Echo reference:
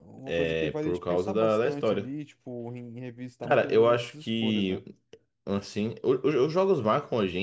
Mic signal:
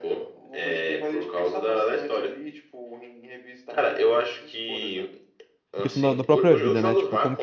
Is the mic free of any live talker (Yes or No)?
No